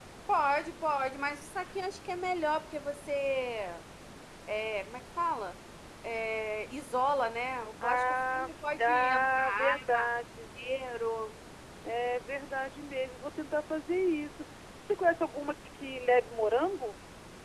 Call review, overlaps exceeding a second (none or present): present